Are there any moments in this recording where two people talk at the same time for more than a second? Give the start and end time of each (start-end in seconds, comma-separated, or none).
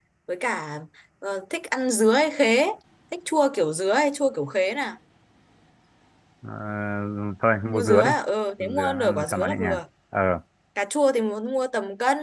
8.6-9.8